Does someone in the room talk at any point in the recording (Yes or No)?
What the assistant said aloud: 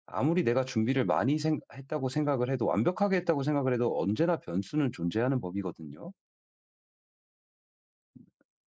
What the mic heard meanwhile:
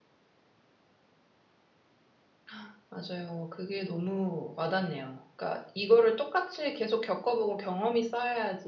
Yes